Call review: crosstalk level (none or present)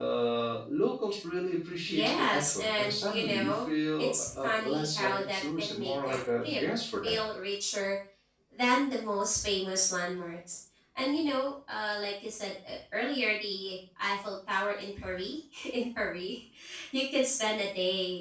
present